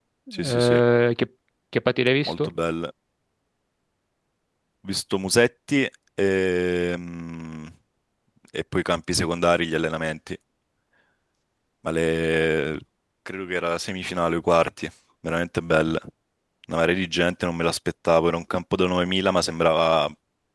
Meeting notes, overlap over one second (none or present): none